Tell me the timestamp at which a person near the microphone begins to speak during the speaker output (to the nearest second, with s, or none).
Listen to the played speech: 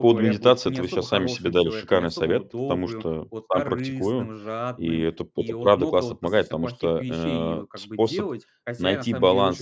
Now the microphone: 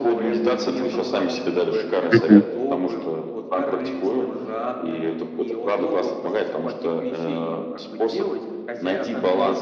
2 s